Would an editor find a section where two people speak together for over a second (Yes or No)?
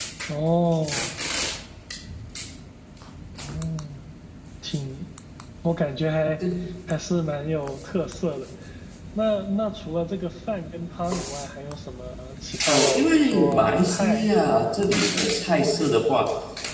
Yes